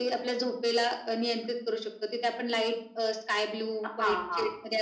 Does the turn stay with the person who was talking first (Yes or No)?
No